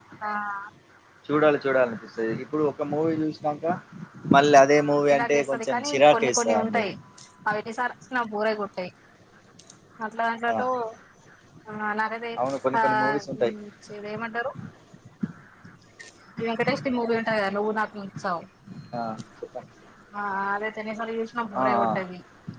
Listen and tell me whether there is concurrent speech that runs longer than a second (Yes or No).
Yes